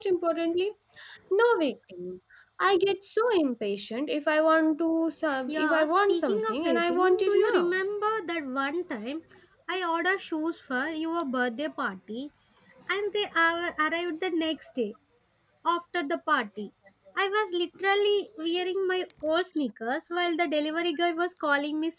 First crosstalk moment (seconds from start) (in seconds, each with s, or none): 5.5 s